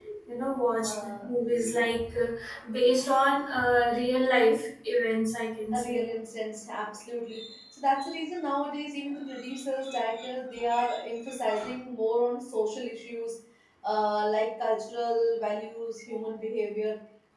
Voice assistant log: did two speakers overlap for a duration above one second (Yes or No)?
No